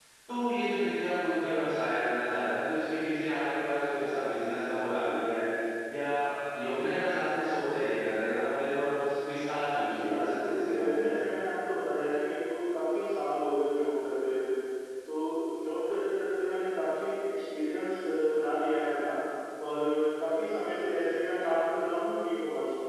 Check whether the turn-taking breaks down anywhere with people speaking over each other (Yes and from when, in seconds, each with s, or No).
Yes, from 9.9 s